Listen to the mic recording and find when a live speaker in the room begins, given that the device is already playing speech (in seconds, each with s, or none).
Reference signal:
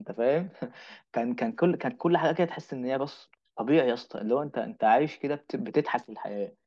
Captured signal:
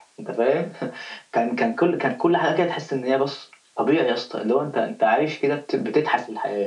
none